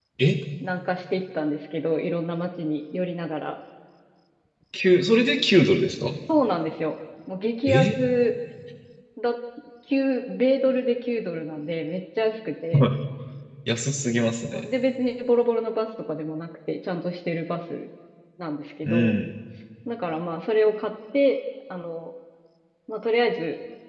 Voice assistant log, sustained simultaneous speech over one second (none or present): none